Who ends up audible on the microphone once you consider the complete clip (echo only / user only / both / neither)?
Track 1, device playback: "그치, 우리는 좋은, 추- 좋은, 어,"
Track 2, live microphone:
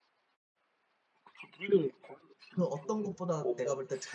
both